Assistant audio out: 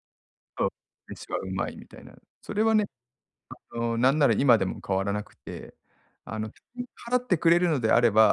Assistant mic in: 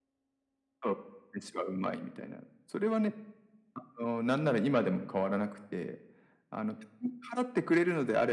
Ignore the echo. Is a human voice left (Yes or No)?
No